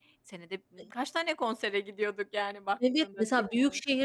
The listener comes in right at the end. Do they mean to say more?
Yes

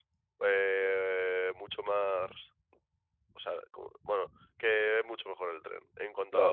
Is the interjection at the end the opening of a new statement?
Yes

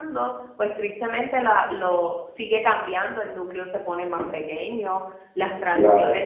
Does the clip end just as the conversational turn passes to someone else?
No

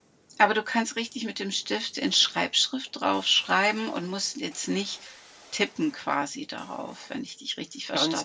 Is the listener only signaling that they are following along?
No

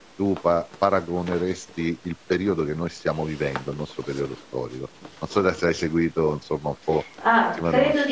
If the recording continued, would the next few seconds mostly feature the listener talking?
Yes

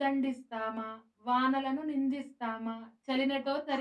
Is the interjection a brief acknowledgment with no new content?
Yes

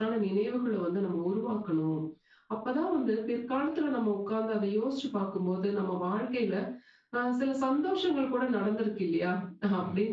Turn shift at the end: No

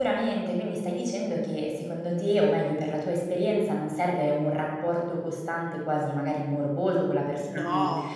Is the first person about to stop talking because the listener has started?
No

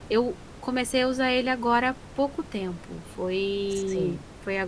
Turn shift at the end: No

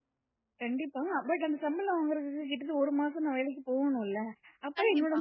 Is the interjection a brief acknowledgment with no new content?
Yes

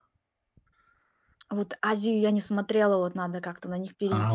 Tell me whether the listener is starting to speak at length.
Yes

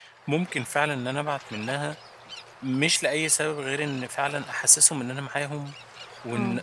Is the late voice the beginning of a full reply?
No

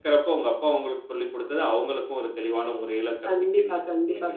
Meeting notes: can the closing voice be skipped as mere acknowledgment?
No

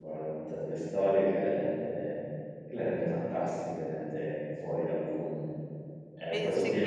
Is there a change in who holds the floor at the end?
No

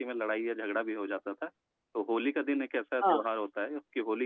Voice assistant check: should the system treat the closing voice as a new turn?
No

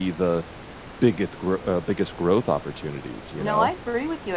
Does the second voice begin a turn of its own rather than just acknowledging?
Yes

